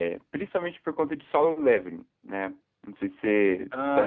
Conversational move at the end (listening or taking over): taking over